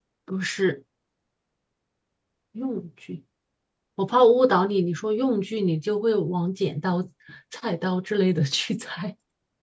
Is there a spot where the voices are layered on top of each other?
No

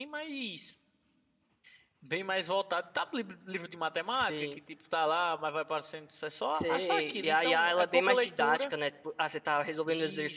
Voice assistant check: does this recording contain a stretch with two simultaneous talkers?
Yes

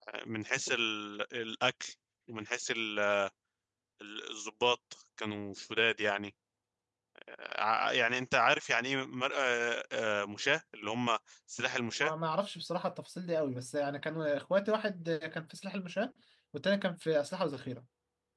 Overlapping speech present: No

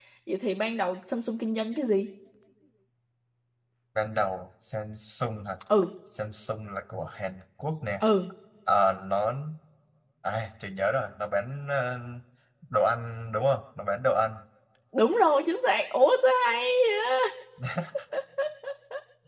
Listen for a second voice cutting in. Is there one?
No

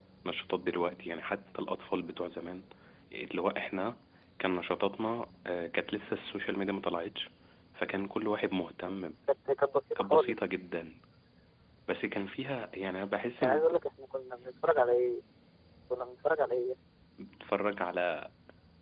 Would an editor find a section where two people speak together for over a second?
No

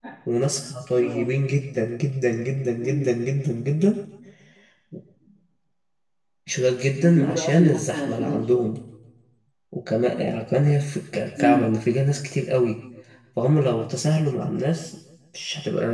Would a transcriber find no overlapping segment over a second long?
No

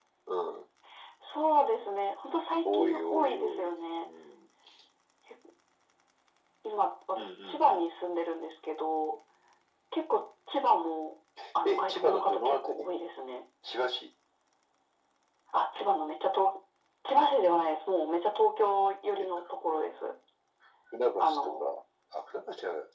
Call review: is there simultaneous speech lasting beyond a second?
Yes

